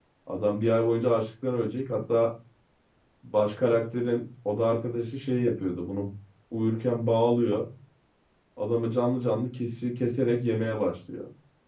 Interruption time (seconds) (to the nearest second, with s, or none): none